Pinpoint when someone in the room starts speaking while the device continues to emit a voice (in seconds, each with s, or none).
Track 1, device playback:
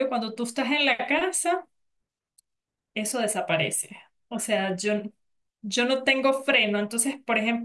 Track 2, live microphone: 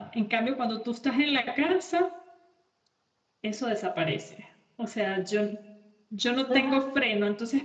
6.5 s